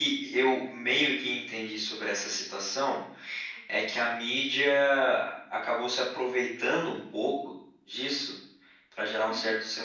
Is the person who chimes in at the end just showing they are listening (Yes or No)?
Yes